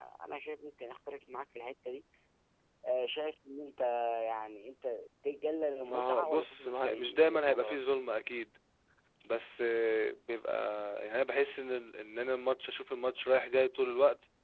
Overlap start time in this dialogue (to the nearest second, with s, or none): 6 s